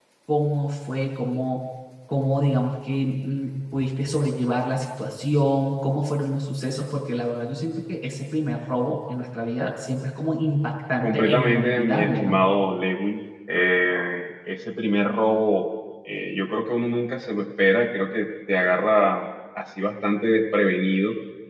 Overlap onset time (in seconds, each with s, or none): 11.0 s